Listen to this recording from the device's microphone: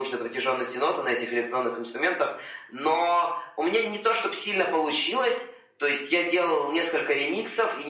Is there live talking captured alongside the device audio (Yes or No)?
No